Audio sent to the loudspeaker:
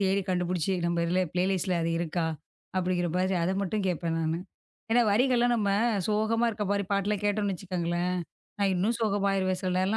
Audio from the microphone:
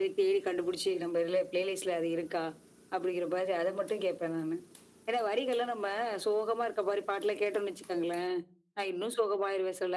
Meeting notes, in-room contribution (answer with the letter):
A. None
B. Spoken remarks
A